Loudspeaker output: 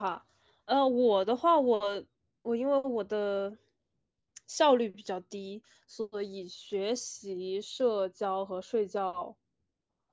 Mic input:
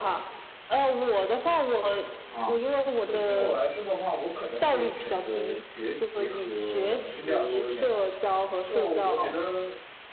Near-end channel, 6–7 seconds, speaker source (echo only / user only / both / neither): both